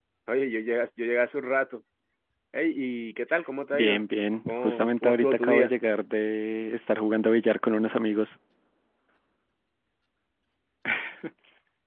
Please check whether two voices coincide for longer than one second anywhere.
Yes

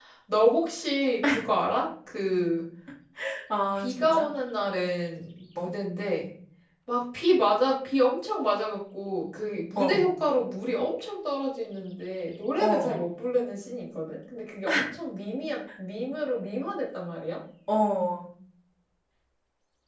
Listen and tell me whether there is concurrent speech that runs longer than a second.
No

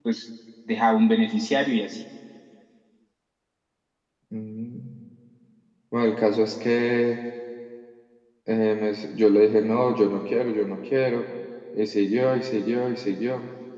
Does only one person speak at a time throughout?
Yes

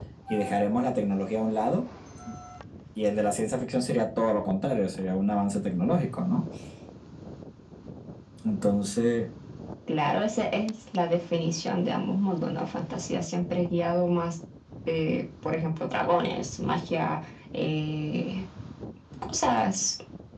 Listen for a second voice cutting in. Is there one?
No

